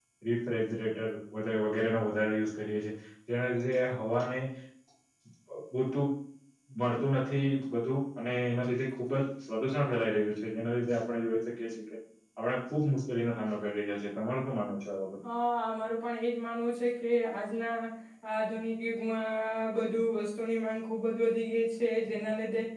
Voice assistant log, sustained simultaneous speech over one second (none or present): none